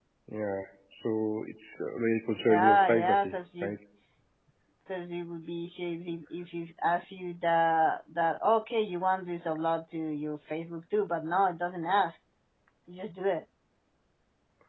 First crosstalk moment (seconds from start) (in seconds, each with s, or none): 2.4 s